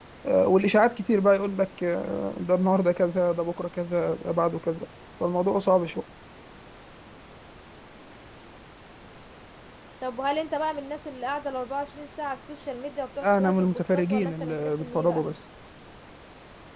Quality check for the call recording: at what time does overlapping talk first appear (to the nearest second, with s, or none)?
13 s